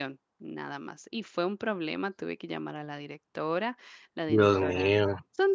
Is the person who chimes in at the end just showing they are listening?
Yes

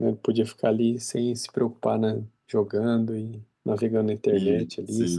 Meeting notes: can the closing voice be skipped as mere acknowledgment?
No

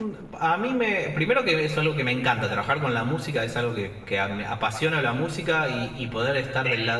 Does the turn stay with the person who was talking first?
Yes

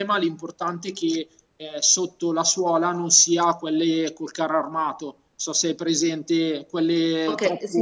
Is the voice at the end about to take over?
Yes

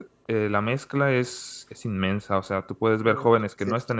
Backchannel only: Yes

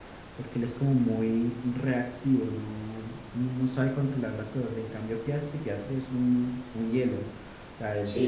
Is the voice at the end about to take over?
Yes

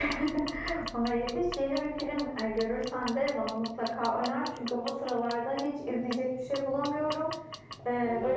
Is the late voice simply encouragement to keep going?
Yes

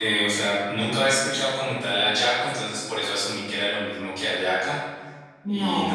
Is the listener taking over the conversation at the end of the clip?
No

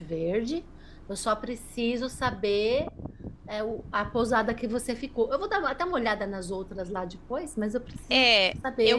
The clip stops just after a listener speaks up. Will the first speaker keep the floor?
No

